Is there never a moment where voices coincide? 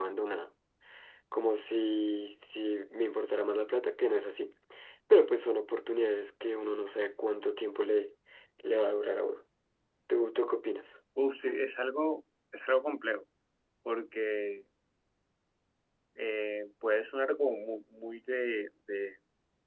Yes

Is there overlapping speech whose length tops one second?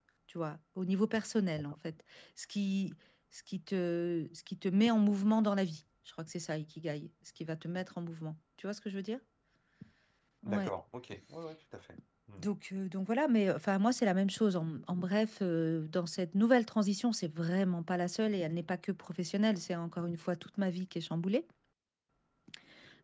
No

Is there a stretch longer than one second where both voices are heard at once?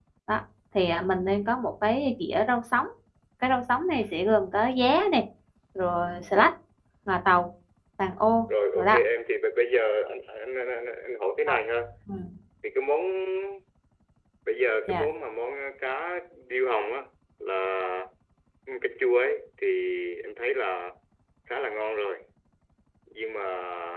No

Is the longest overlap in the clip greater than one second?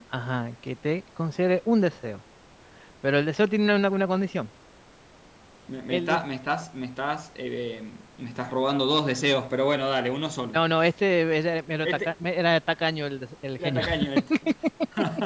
No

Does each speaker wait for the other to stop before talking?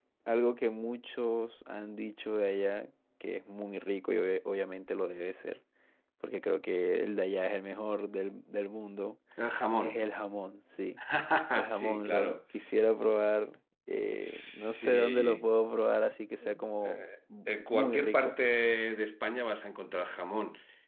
No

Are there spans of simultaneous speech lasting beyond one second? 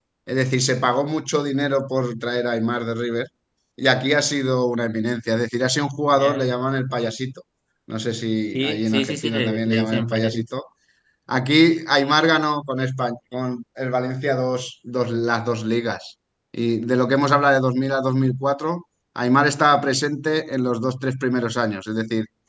Yes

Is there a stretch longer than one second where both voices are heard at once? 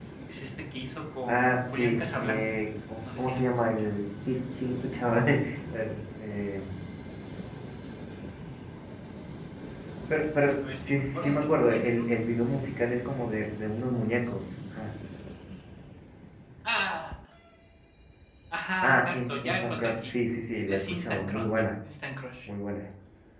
Yes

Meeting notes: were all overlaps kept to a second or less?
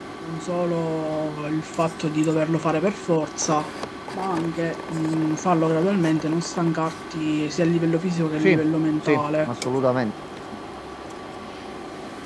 Yes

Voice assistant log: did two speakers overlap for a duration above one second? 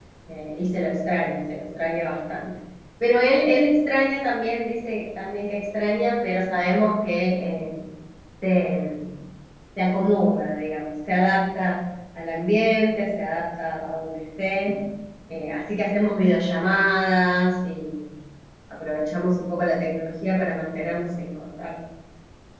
No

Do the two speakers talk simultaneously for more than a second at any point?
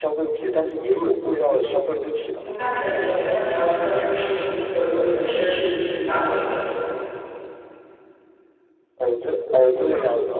No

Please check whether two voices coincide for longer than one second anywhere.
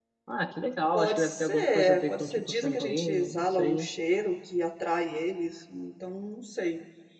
Yes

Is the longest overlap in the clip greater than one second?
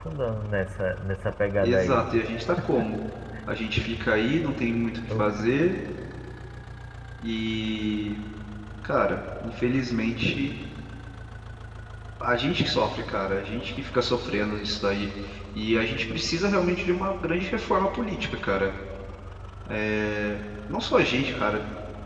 No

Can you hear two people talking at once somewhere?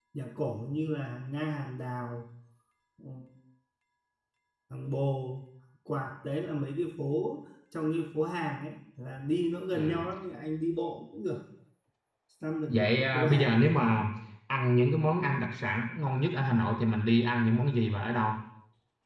Yes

